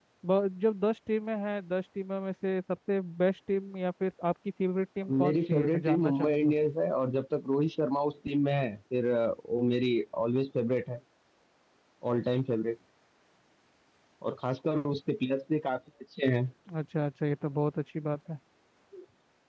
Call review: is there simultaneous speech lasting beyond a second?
Yes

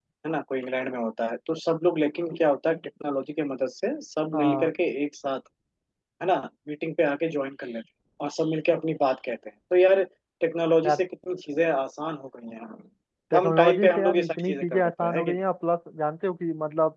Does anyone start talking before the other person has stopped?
Yes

